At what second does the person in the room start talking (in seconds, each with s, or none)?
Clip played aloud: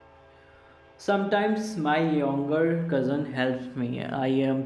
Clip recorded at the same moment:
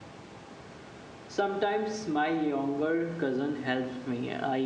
none